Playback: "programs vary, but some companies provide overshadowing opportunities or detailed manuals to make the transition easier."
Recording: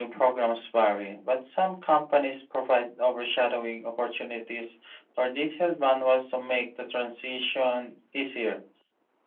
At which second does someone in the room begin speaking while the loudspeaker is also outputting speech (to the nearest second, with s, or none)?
none